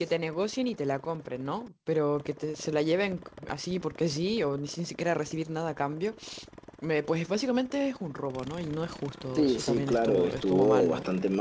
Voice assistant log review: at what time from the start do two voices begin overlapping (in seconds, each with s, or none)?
9.3 s